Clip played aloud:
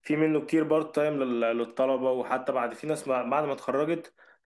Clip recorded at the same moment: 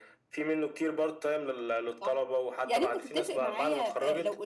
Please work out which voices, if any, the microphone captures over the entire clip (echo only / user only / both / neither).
both